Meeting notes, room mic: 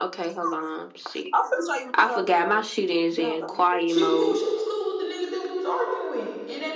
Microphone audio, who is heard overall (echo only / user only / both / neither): both